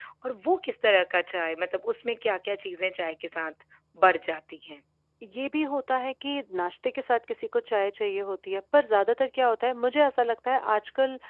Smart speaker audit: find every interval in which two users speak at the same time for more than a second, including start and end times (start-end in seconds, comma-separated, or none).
none